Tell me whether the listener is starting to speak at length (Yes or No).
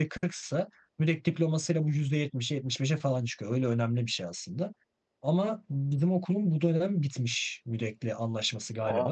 No